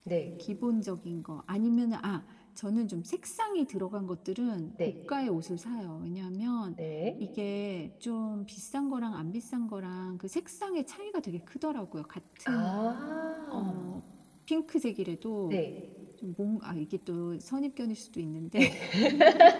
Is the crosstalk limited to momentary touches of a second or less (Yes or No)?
Yes